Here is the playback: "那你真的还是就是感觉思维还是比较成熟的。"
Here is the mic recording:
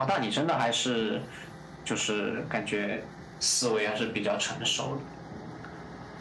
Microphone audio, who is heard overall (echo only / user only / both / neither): echo only